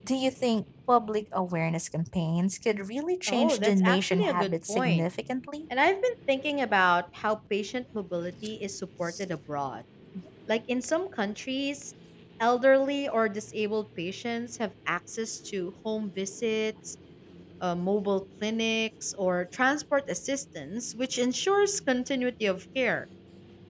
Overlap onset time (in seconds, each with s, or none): 3.3 s